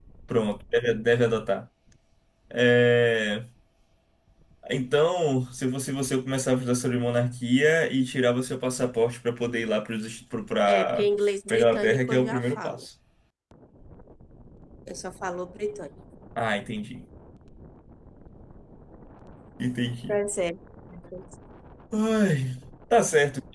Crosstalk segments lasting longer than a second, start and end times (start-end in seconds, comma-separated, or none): 11.5-12.8